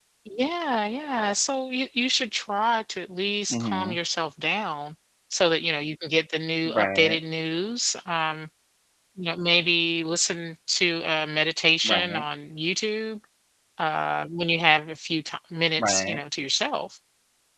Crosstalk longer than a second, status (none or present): none